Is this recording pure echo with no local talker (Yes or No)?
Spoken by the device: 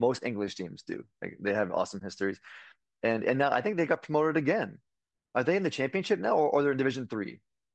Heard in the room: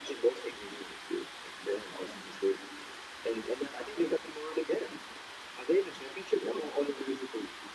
Yes